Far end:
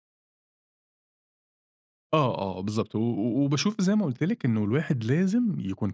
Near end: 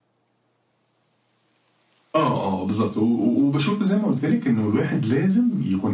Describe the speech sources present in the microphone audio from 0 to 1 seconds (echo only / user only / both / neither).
neither